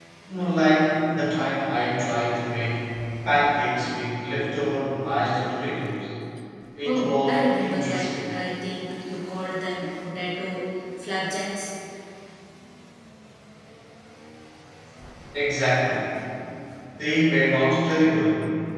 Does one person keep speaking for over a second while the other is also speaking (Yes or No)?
Yes